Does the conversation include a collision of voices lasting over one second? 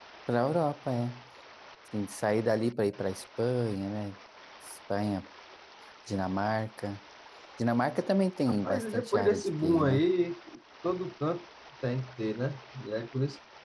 Yes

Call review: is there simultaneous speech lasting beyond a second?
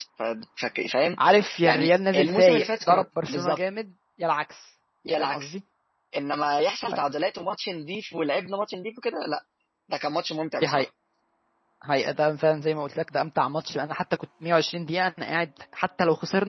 Yes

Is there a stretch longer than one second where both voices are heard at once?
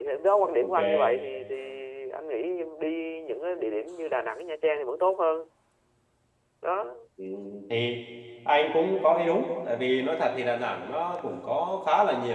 No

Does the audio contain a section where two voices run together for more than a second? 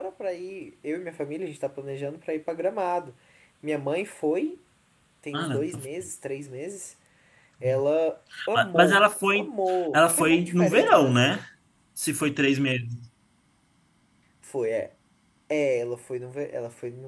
Yes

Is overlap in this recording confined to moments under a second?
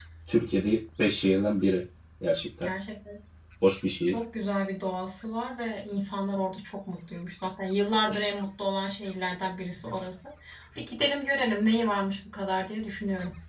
Yes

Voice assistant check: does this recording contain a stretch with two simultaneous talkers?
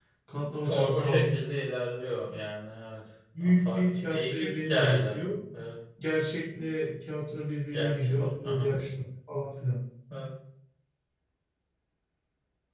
Yes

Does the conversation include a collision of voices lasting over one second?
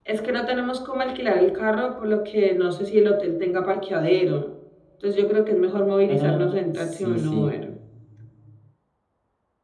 Yes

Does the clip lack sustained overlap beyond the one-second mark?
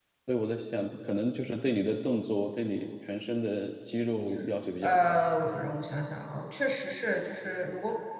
Yes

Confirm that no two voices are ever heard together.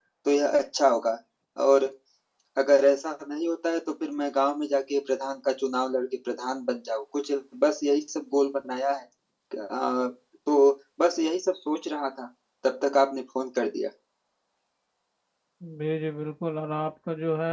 Yes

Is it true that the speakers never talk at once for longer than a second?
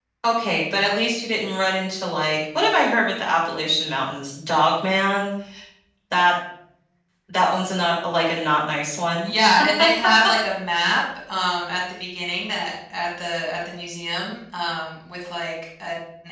Yes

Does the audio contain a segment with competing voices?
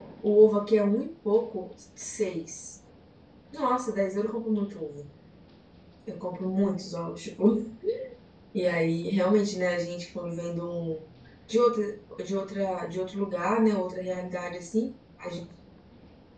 No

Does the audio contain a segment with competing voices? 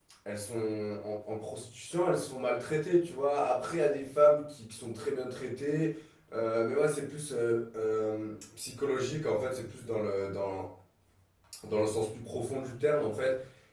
No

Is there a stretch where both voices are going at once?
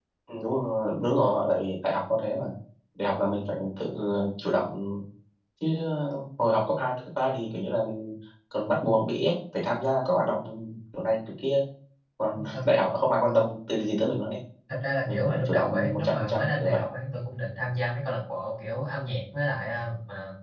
Yes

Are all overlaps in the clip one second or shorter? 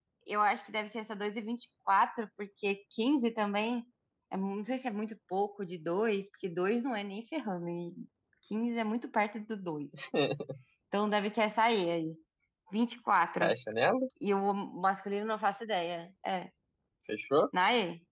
Yes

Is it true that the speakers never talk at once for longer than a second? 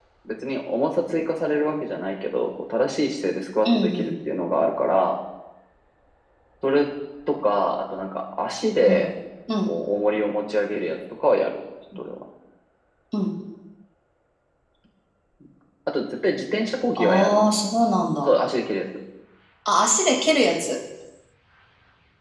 Yes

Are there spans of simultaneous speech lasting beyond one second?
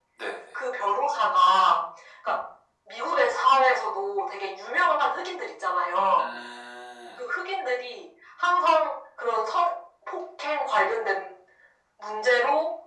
No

